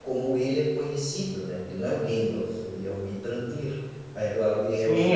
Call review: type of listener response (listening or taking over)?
taking over